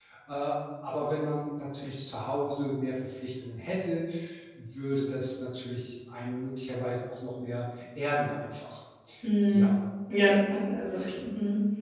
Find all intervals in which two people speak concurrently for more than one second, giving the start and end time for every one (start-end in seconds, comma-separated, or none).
none